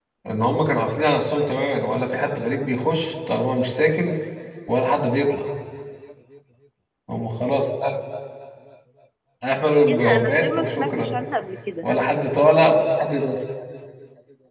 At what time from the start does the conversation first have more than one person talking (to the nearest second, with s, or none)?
10 s